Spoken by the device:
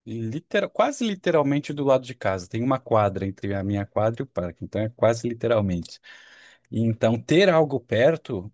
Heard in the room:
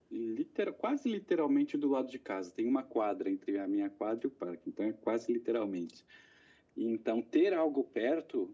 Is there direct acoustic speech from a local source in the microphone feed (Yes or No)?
No